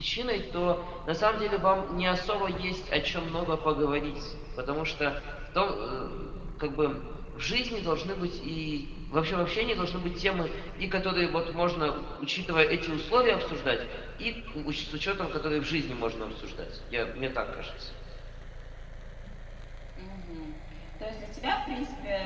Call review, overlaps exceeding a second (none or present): none